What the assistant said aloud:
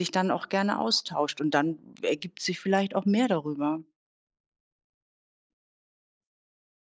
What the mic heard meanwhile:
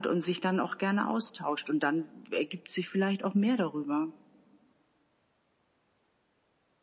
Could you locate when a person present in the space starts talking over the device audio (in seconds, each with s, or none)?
none